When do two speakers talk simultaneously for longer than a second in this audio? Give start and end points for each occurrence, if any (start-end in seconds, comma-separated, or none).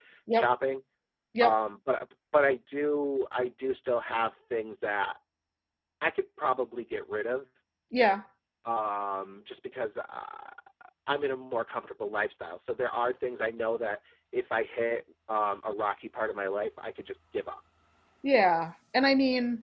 none